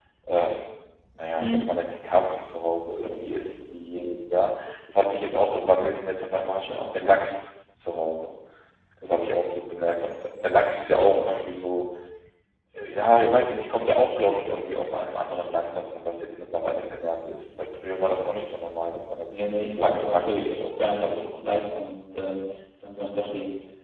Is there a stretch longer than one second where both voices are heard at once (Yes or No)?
Yes